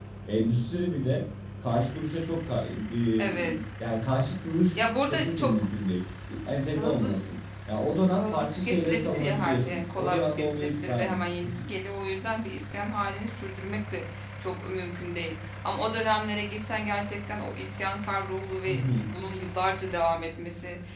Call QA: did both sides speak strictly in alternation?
No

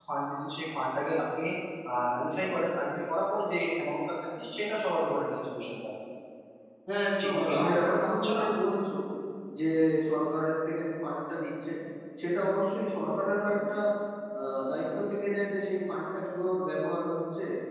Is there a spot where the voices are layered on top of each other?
Yes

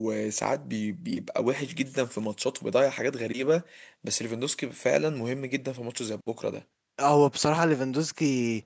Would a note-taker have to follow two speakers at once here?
No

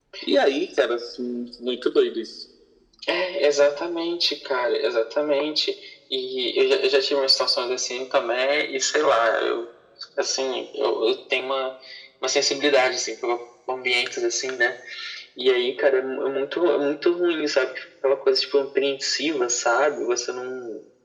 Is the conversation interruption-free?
Yes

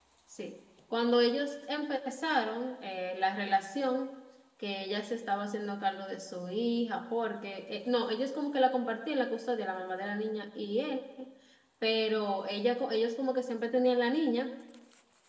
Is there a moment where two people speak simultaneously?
No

